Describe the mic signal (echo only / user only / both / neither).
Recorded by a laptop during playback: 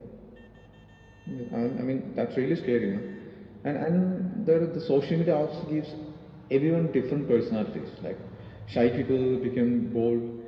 echo only